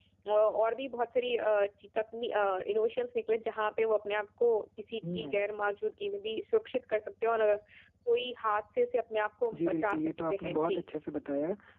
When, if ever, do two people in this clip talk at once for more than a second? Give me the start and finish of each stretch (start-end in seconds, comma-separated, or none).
9.6-10.8